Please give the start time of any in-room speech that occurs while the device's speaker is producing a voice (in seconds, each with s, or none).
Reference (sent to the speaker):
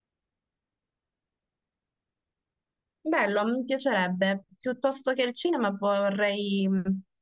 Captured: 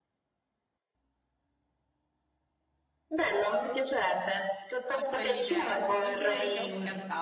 4.9 s